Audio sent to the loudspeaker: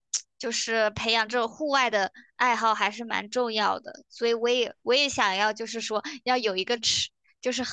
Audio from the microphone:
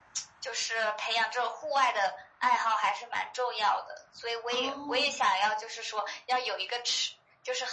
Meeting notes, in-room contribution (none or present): present